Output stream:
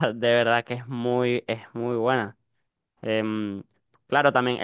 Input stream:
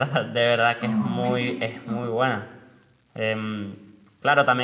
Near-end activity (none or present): present